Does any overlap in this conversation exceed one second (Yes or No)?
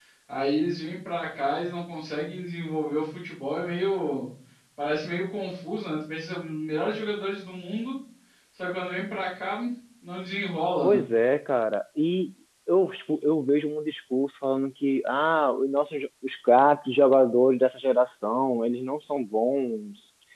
No